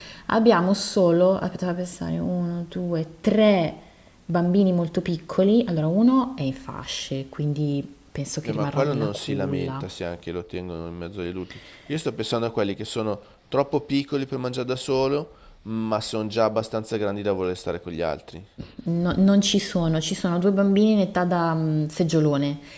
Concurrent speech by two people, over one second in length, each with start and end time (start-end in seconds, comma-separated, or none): 8.4-9.8